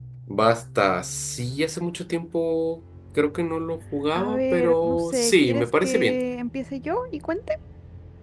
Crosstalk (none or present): present